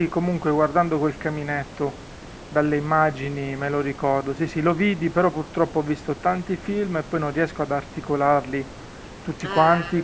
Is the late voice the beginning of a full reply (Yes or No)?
No